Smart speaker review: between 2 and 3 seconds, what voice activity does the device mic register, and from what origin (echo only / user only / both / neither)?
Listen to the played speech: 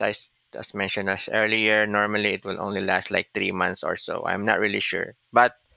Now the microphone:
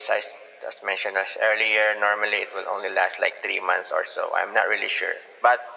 echo only